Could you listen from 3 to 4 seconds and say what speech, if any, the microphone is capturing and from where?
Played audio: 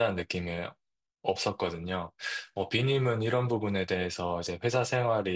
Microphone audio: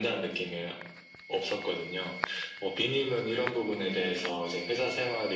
echo only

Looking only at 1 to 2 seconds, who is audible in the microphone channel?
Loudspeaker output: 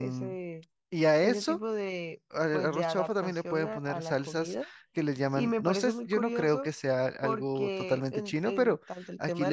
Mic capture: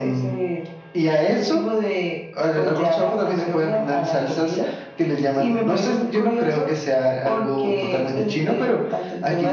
echo only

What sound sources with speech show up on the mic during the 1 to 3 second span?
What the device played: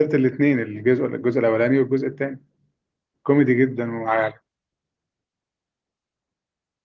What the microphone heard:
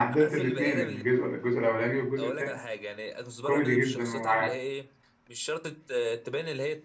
both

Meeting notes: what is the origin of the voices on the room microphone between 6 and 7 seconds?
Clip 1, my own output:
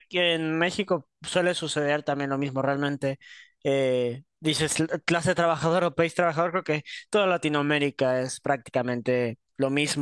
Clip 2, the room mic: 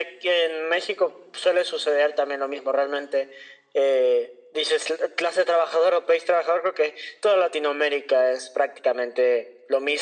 echo only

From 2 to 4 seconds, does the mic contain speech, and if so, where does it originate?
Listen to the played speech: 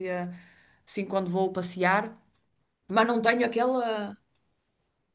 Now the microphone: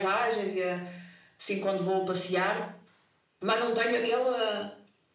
echo only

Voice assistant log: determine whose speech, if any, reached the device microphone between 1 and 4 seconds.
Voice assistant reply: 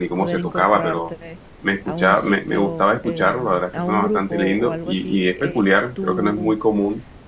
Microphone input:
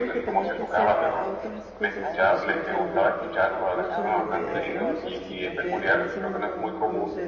both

